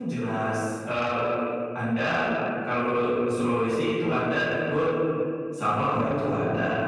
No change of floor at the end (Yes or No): Yes